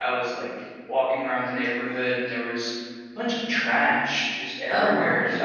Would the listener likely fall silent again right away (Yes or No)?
Yes